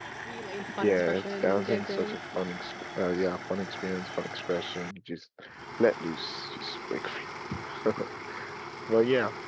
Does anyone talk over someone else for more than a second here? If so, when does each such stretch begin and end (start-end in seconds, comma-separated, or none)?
0.8-2.2